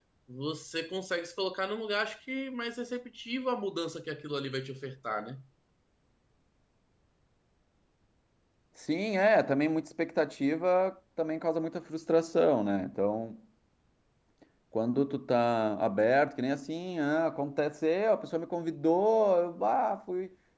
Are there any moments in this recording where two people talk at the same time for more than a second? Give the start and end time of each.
none

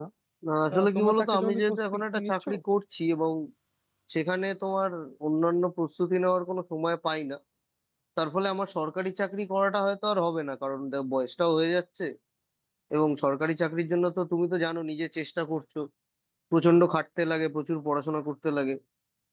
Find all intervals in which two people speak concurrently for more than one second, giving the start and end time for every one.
0.7-2.3

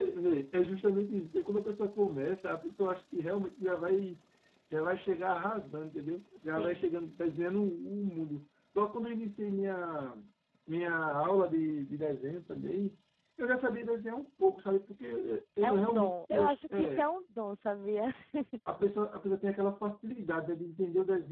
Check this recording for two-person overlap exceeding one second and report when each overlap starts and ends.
15.6-17.0

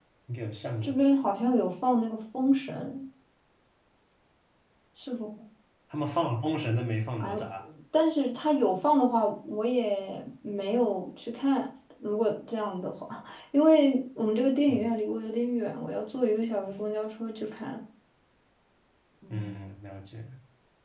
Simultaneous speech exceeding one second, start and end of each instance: none

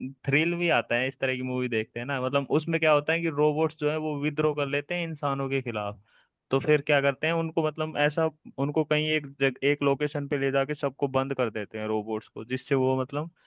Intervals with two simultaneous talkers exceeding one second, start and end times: none

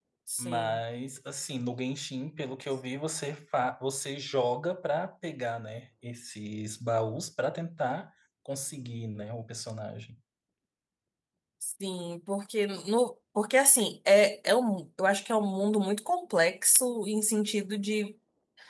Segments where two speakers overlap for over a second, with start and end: none

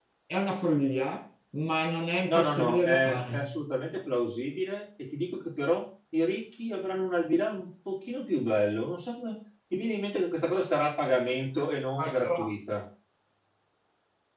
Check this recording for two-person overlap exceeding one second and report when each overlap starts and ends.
2.2-3.4

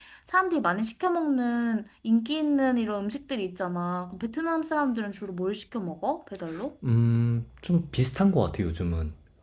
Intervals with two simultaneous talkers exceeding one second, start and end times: none

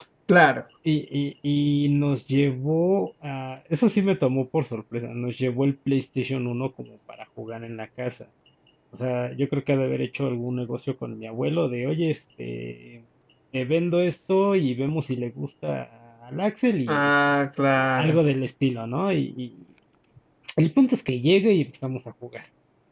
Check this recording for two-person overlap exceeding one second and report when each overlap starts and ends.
none

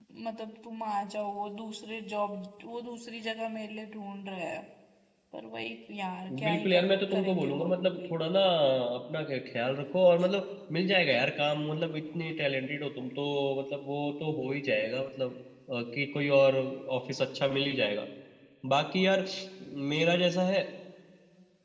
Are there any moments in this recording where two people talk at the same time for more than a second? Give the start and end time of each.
6.4-8.2

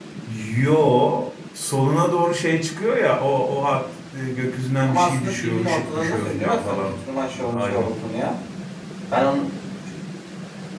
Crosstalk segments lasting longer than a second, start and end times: 4.8-7.0

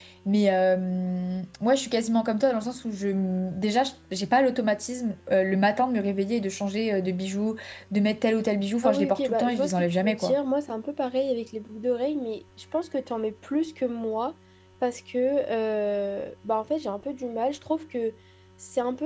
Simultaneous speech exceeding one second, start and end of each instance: 8.8-10.3

